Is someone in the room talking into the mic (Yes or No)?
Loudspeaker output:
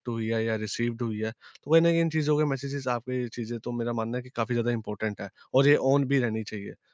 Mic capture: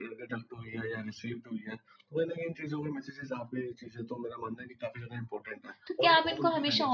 Yes